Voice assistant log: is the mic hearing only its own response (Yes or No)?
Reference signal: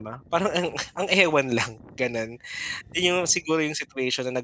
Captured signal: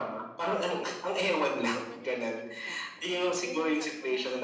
No